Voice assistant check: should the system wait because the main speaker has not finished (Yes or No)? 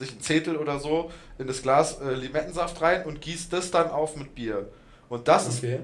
Yes